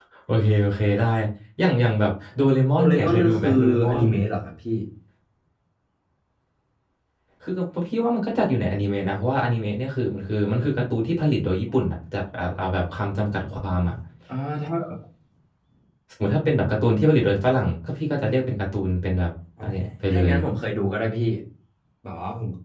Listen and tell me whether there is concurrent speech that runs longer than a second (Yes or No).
Yes